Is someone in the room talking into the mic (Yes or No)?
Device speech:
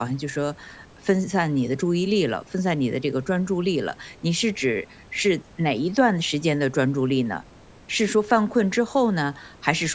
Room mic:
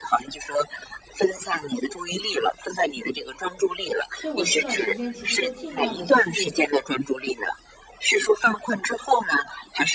Yes